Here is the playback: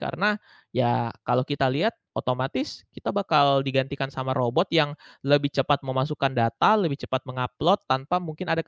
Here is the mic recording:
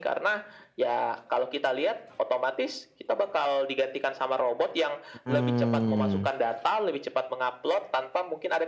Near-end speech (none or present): present